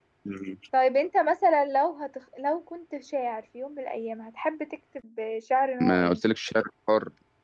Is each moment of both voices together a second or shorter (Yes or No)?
Yes